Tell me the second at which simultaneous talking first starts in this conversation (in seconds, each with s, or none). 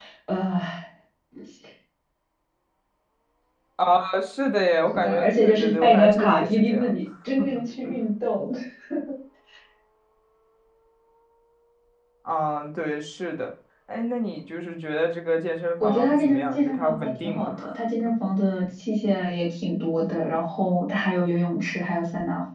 4.9 s